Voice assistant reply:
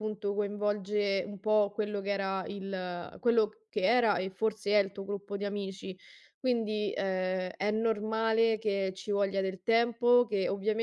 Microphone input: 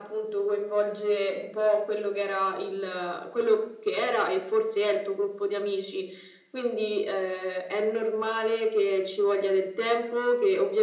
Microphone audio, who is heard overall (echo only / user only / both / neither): echo only